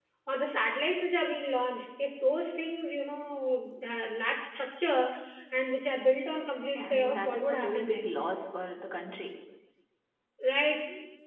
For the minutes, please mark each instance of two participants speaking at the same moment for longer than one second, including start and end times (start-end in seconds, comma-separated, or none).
6.8-8.1